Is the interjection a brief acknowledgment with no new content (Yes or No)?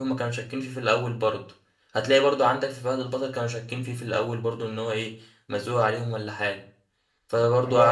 No